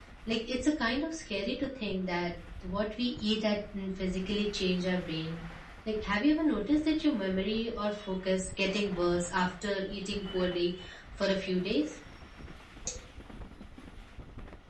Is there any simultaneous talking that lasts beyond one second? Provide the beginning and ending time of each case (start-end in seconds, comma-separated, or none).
none